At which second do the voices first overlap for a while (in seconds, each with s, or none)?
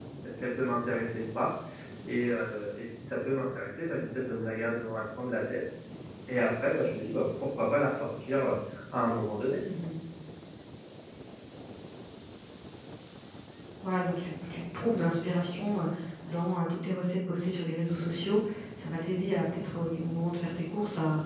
none